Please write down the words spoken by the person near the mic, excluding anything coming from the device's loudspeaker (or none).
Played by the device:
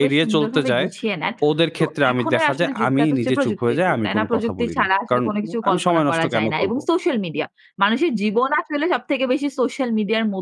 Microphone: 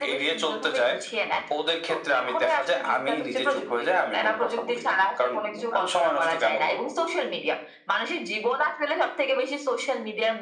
none